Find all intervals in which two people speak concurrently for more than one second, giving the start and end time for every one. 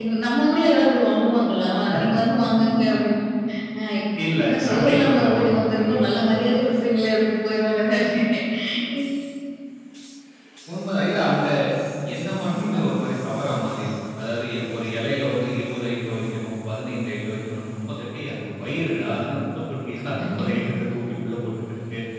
4.5-6.2

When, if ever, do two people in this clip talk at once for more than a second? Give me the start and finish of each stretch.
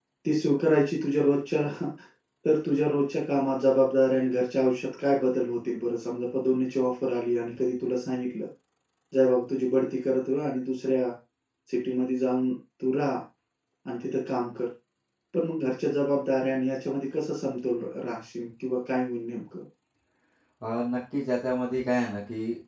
none

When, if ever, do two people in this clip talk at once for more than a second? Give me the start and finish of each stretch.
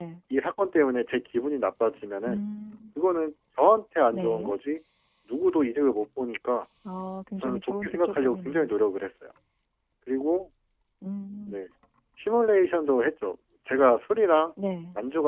7.4-8.7

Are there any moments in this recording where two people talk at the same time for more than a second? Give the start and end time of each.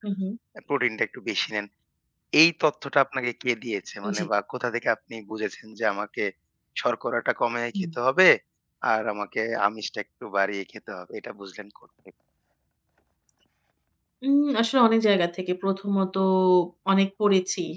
none

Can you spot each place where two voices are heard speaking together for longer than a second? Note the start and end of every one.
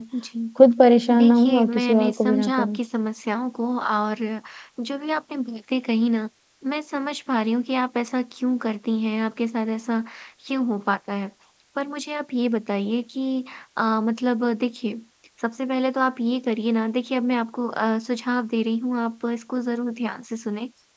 1.2-2.8

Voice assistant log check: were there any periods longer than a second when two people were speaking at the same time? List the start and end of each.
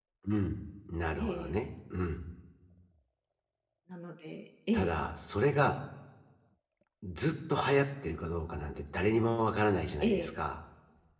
none

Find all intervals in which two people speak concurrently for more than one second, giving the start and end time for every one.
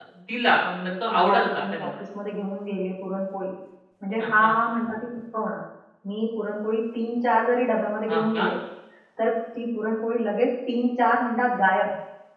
0.6-1.9

